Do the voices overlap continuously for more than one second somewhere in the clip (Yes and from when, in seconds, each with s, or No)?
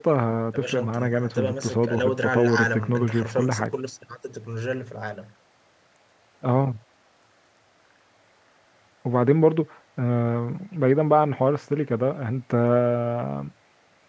Yes, from 0.5 s